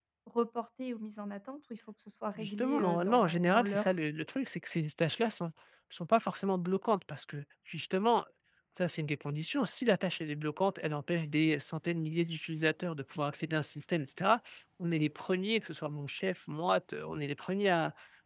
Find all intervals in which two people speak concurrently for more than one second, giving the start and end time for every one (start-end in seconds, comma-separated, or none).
2.4-3.9